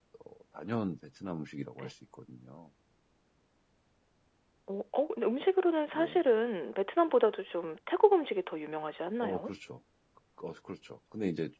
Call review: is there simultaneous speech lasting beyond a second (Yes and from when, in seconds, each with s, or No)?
No